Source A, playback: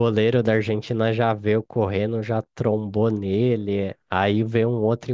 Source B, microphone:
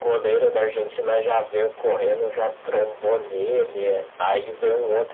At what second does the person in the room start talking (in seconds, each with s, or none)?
none